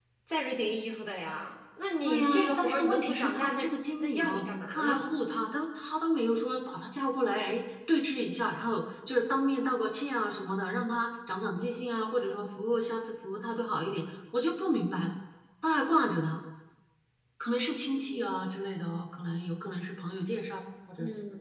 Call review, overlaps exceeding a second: present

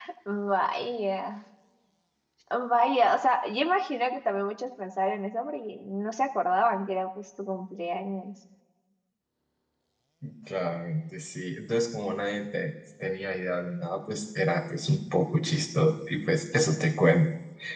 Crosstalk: none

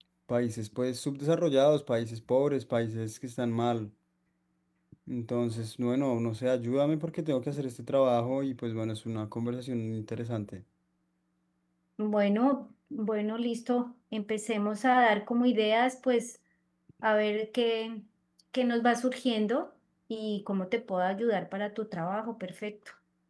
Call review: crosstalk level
none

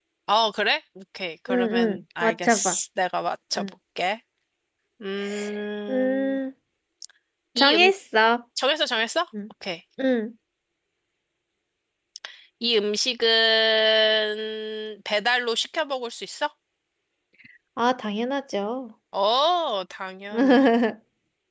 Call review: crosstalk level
present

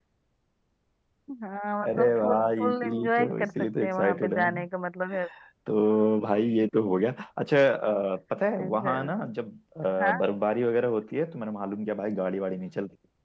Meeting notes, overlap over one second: present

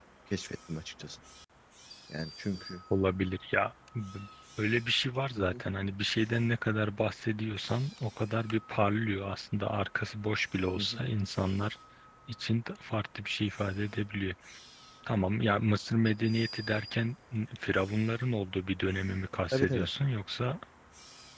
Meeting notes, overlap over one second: none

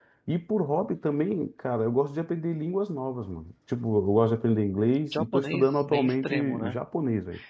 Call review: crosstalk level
present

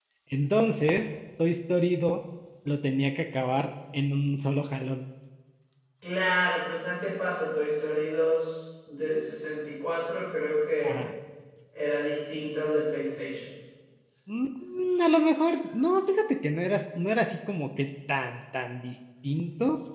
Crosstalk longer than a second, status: none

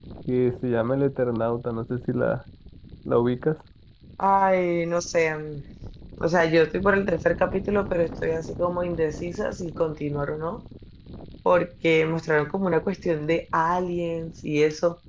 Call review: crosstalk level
none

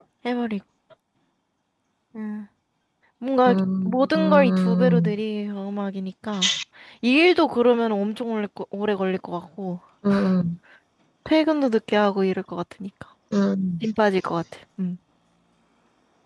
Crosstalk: present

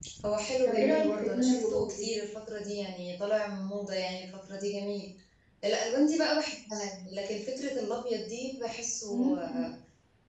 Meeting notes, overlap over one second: present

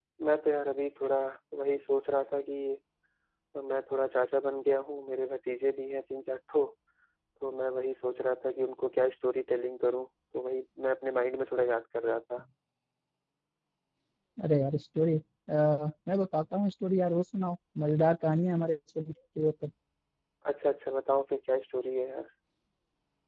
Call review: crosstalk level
none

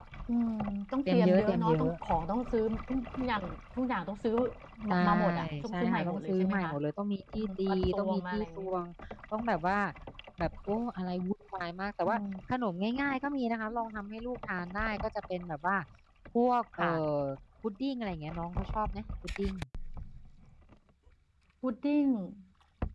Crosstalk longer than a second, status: present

